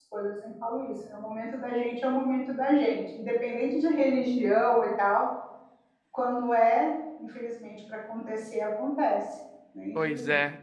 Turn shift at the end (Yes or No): Yes